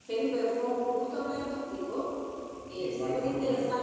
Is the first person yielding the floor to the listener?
No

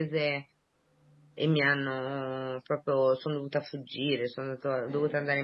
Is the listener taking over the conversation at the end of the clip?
No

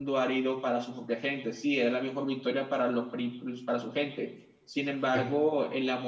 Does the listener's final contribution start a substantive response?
No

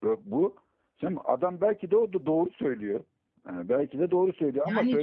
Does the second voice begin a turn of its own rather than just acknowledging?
No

